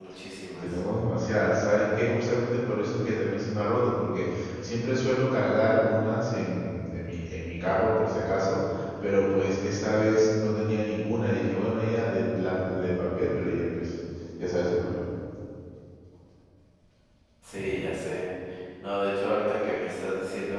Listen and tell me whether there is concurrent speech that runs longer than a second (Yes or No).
No